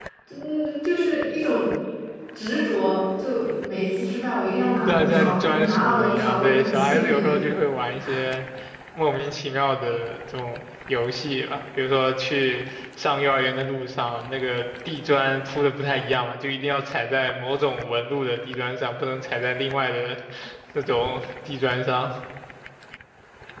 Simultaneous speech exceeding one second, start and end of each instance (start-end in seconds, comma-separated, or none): 4.9-7.3